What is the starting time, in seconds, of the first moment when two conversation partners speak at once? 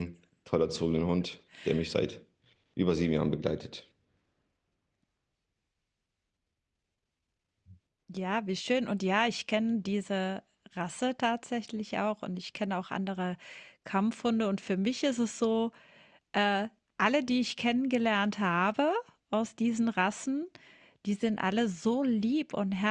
none

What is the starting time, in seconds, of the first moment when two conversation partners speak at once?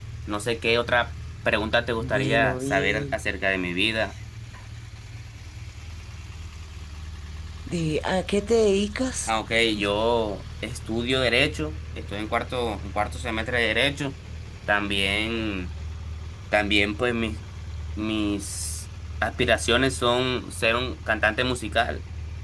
2 s

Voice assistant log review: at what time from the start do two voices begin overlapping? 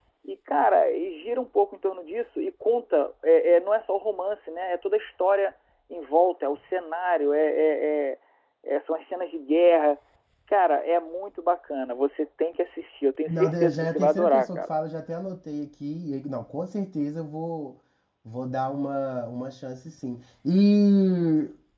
13 s

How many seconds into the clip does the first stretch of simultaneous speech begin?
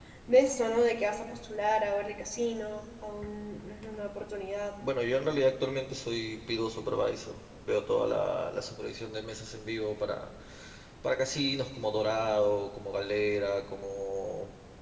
none

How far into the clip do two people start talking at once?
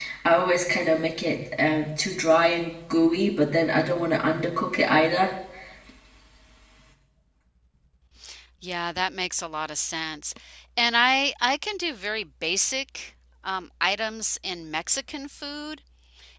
none

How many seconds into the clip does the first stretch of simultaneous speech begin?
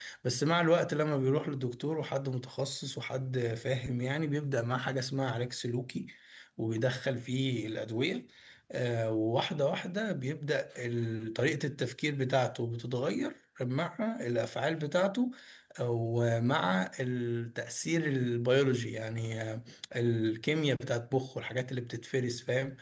none

